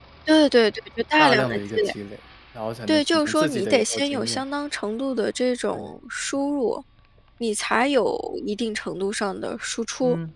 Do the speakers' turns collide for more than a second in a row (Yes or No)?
Yes